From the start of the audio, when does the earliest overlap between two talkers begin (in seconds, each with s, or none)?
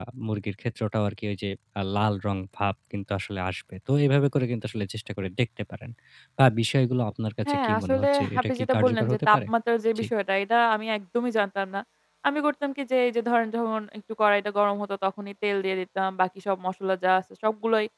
7.5 s